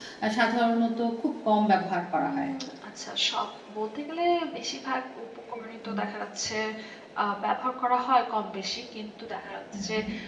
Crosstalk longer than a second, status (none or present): none